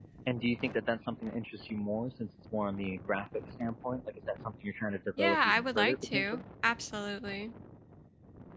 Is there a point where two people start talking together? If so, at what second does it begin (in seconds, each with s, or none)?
5.2 s